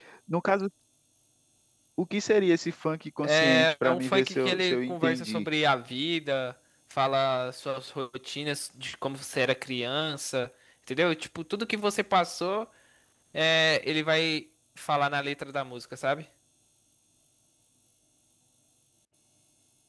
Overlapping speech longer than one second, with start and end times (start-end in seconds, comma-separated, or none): 3.2-5.5